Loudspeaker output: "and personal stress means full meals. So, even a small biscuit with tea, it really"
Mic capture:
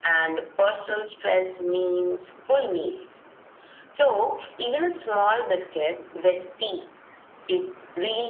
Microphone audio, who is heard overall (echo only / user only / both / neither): echo only